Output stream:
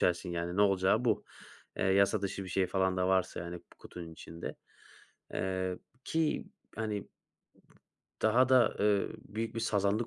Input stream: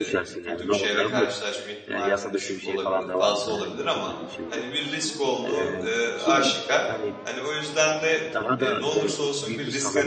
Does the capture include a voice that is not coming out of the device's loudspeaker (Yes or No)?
Yes